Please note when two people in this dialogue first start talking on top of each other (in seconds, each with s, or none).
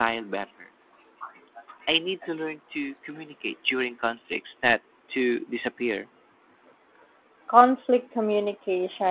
none